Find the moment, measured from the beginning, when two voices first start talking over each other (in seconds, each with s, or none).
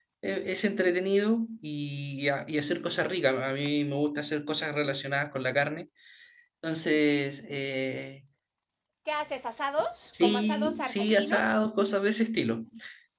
10.1 s